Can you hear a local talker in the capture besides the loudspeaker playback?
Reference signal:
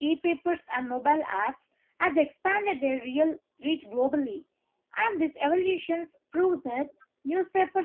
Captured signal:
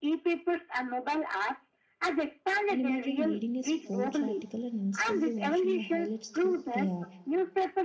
Yes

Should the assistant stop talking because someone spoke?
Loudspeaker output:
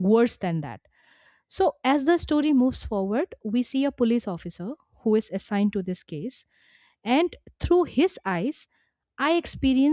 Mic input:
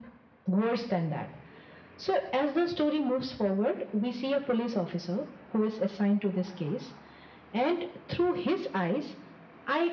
No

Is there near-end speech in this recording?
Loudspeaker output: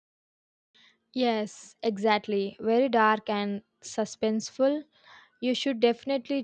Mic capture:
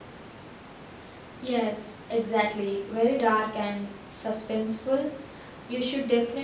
No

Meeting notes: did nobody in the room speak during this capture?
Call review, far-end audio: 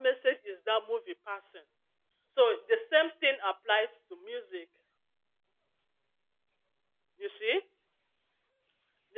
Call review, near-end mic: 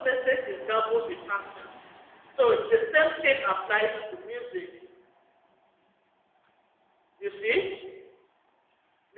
Yes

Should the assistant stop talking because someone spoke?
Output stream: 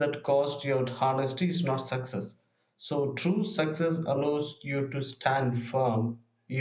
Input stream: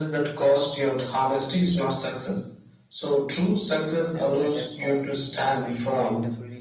Yes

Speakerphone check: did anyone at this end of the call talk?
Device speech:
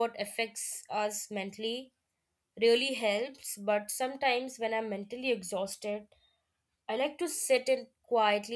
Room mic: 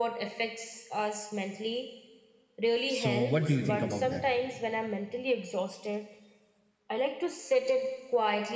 Yes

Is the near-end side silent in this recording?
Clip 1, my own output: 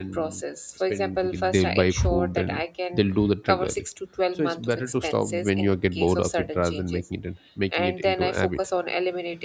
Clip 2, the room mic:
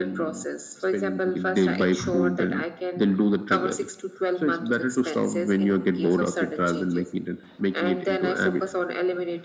Yes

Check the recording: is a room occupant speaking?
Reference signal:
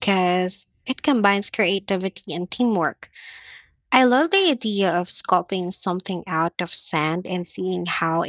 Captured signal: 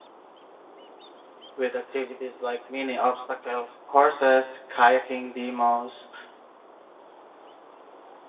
Yes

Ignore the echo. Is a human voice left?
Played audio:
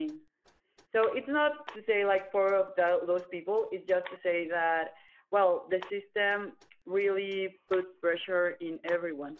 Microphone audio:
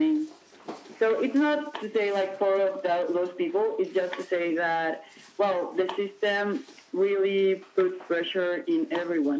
No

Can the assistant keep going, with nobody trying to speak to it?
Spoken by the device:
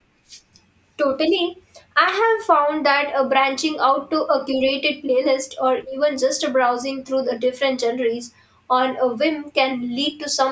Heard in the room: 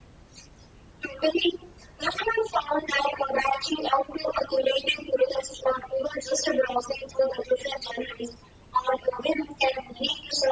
Yes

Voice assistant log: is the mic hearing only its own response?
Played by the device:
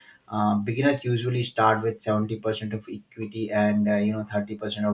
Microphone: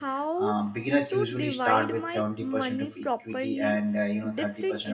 No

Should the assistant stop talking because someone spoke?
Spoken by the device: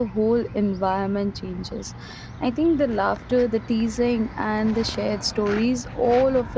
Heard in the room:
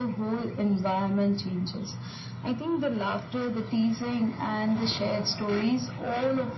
No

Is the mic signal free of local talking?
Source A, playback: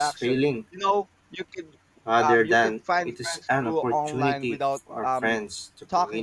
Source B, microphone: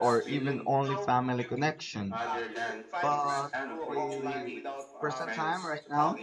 No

